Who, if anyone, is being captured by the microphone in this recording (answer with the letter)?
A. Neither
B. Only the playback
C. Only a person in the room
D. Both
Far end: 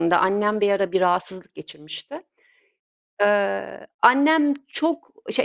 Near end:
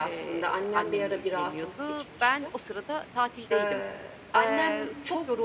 D